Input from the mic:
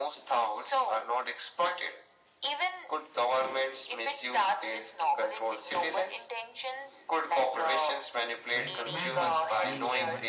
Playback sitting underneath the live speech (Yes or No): No